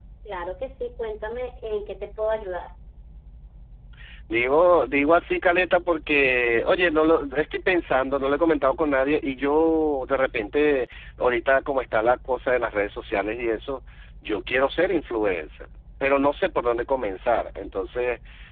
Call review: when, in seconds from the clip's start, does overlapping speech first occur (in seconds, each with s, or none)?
none